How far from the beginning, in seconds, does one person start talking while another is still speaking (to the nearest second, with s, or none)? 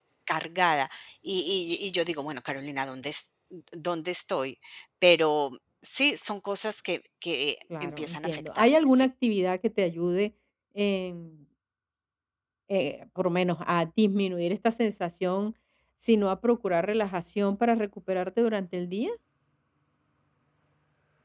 8 s